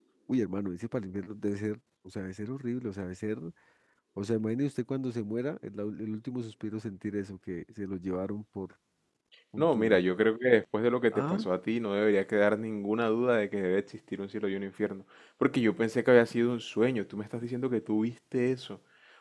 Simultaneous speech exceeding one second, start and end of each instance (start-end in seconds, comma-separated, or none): none